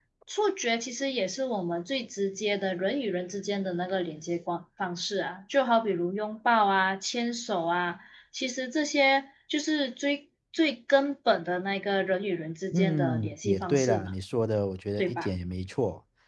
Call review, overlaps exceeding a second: present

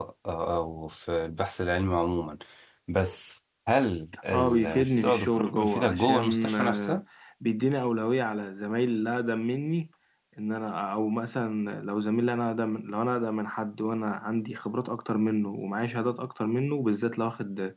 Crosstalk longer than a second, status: present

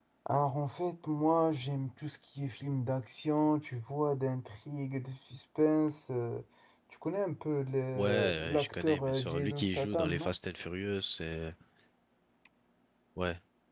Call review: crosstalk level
present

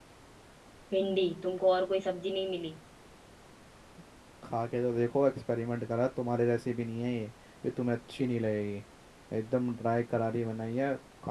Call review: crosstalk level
none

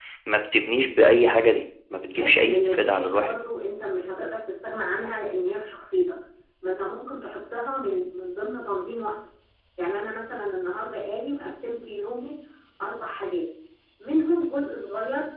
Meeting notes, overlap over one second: present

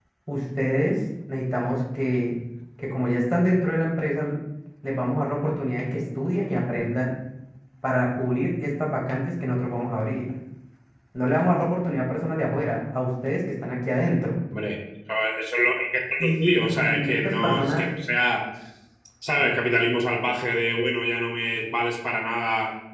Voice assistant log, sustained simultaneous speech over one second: present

